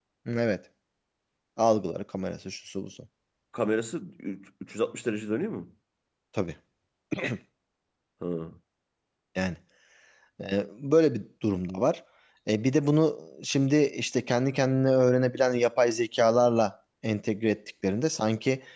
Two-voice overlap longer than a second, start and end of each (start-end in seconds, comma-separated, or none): none